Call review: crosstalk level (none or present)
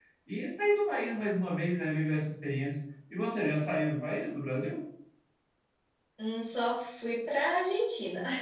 none